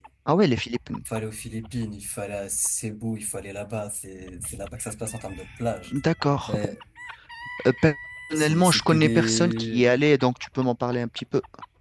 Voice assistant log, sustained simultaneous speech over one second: present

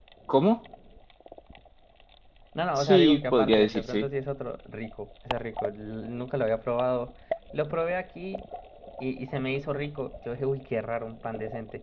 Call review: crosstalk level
present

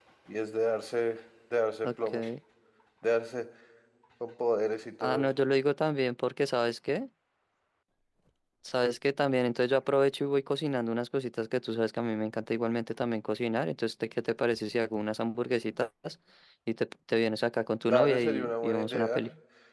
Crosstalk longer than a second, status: present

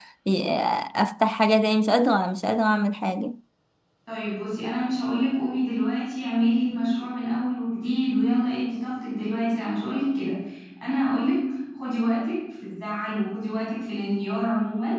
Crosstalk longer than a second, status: none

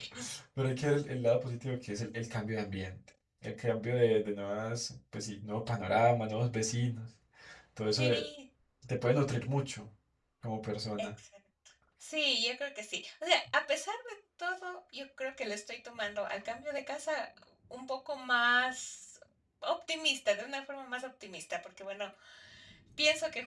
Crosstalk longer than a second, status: none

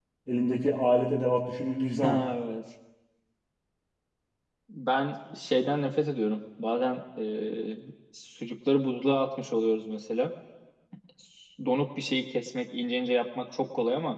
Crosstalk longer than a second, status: none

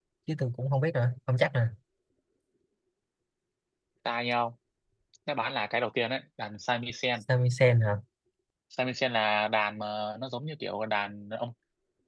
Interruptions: none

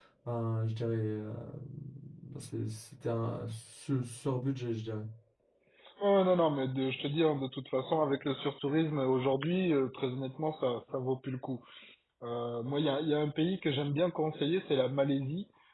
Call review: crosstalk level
none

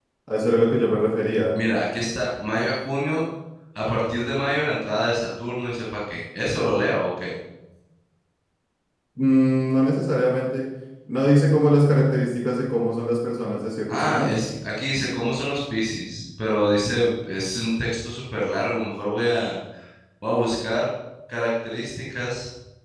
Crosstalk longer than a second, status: none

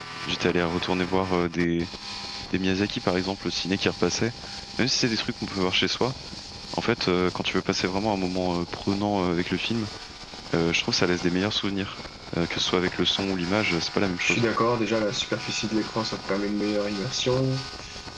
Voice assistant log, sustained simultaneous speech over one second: none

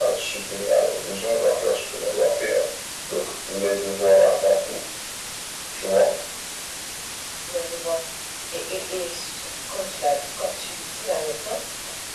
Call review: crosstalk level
none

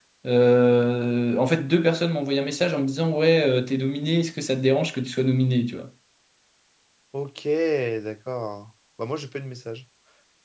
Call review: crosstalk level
none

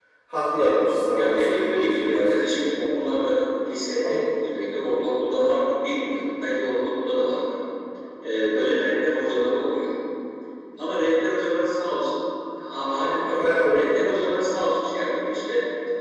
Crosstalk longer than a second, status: present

